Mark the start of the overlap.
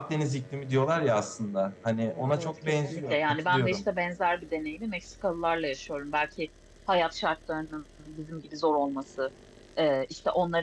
2.1 s

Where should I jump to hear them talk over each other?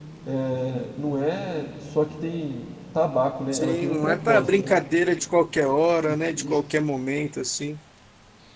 3.5 s

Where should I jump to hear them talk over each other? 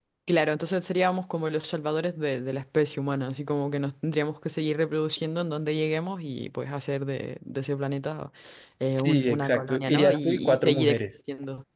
8.9 s

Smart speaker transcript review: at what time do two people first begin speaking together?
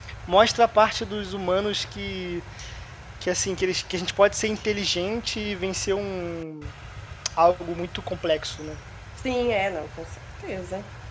none

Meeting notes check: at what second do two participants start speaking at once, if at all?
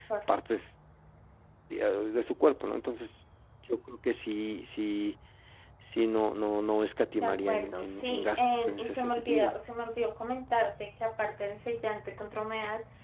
7.2 s

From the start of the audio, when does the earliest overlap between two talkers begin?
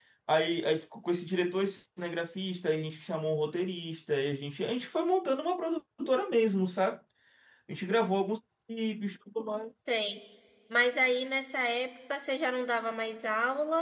none

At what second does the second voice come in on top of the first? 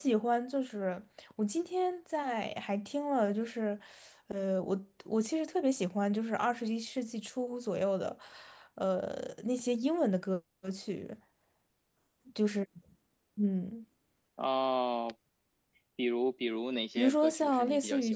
17.0 s

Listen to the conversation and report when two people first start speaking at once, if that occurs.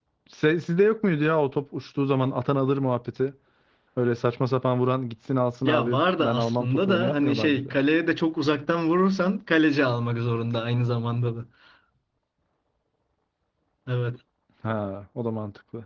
5.6 s

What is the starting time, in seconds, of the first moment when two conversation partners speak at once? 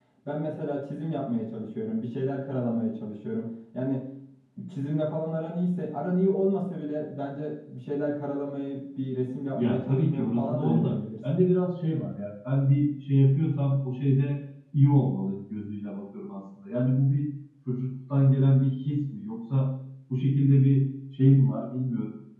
9.5 s

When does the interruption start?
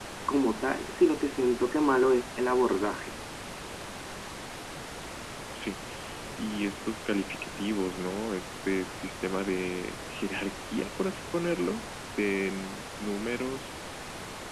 none

